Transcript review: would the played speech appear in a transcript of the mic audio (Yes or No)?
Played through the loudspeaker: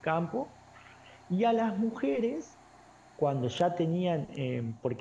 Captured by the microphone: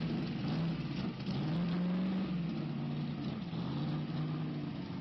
No